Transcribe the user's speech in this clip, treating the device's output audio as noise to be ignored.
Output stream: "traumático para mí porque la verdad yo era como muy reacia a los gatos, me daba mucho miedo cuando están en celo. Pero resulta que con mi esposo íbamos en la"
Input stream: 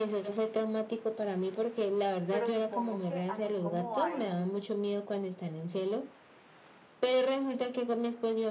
pero supongo que así como hay

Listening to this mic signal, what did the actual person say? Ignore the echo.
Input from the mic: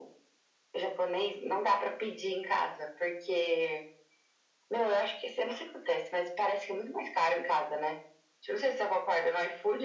none

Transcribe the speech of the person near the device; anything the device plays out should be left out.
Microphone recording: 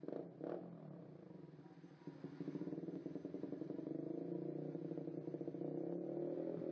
none

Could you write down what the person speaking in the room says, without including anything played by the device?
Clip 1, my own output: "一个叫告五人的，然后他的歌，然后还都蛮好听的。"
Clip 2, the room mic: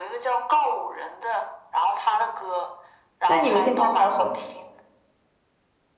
那你们现在还会？

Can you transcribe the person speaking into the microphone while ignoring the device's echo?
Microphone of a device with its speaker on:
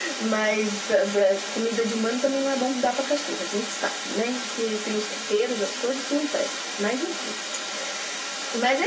none

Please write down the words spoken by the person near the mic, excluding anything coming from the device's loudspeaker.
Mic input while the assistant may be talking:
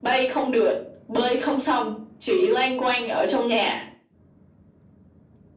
none

